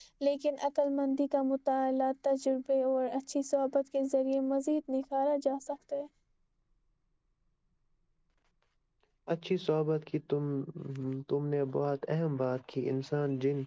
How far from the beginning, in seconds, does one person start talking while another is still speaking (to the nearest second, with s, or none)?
none